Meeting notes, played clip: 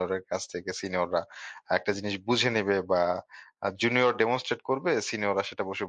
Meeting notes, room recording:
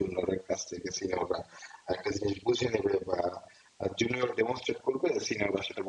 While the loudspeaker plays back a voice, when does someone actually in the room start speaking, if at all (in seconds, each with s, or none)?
none